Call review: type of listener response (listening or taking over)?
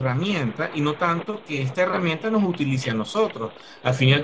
listening